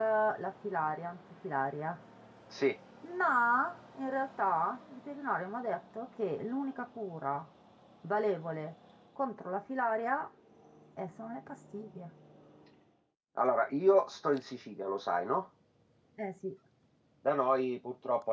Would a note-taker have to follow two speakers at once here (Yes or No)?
No